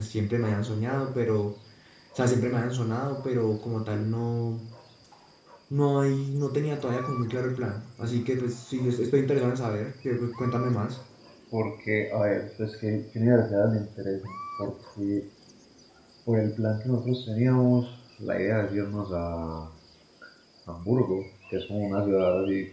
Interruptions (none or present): none